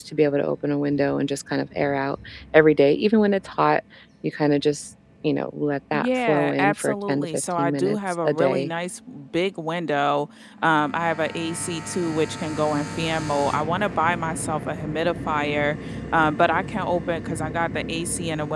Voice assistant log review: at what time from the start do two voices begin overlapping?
5.9 s

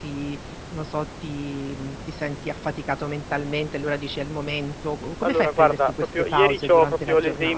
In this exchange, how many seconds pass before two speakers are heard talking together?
5.2 s

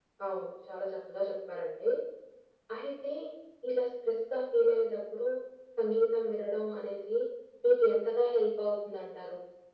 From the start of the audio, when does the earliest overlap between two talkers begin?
none

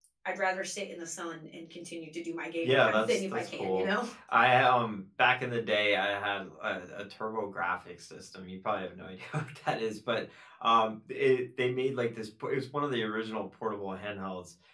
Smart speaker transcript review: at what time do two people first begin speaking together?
2.6 s

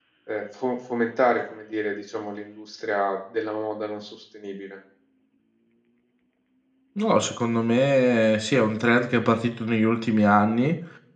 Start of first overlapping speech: none

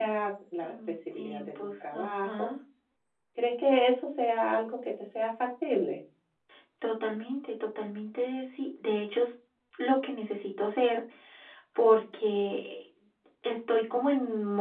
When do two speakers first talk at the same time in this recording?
0.6 s

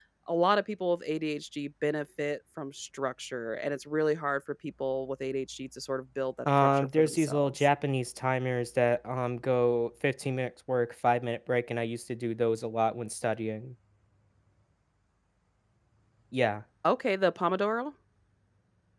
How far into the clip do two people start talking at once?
6.4 s

